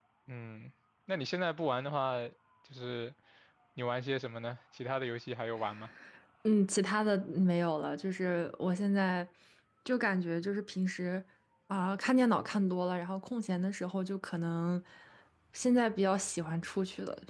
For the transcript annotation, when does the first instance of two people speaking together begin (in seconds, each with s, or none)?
none